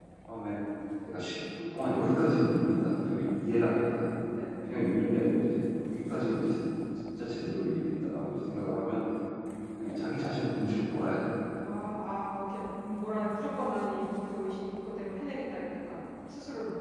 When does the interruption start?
none

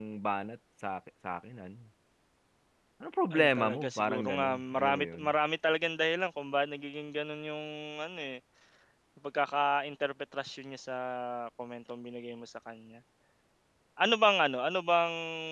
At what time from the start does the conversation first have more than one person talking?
3 s

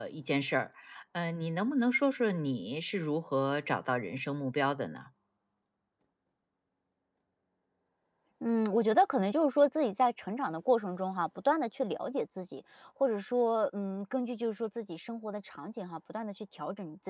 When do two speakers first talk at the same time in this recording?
none

